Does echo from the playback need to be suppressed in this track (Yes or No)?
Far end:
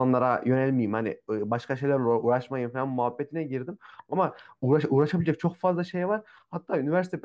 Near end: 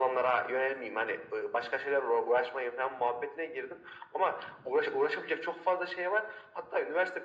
Yes